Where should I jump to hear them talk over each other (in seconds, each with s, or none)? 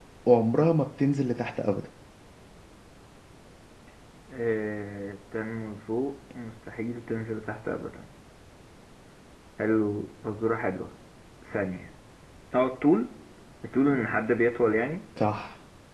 none